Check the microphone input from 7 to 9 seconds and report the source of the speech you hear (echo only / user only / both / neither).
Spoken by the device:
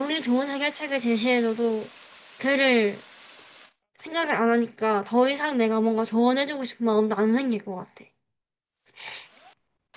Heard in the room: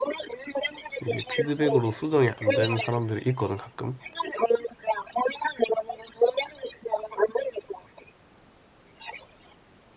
echo only